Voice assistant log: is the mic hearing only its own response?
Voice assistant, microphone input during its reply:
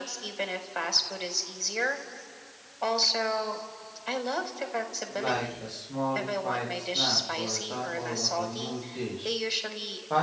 No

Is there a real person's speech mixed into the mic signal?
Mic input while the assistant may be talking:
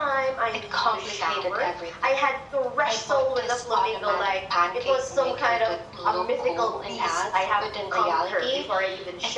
No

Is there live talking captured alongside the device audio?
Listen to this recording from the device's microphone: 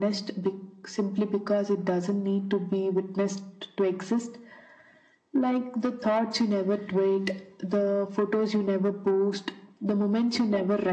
No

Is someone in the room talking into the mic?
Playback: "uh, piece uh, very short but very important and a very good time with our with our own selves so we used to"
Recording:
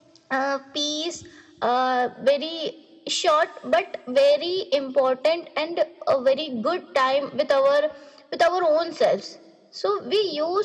No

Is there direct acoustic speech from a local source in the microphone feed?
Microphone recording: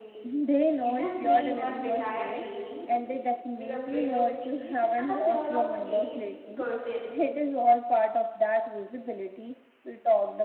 Yes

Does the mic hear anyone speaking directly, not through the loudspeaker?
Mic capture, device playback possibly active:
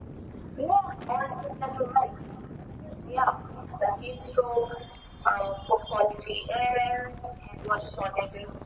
No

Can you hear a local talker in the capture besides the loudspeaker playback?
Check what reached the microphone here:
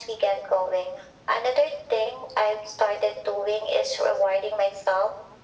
No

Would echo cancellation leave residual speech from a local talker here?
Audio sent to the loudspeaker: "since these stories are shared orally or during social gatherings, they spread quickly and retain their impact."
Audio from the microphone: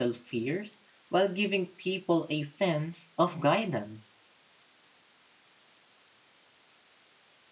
Yes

